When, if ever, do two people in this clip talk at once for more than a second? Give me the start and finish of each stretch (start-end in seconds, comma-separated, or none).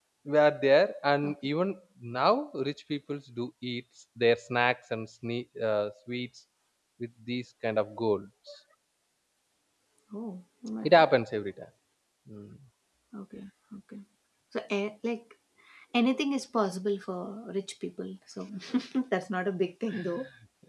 none